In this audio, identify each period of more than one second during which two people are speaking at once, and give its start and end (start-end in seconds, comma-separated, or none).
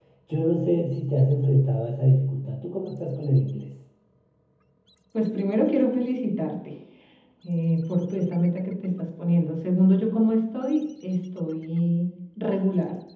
none